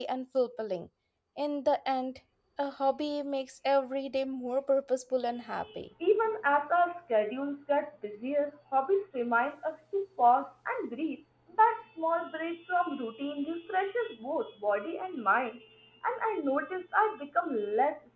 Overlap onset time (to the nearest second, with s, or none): none